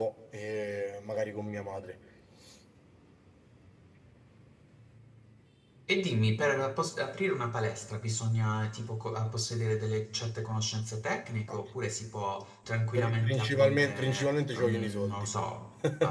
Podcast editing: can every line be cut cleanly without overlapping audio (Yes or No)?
No